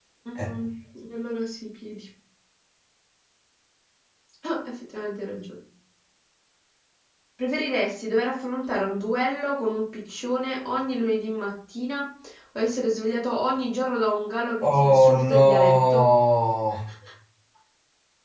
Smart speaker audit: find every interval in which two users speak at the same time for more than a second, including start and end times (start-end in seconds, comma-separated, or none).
14.6-16.0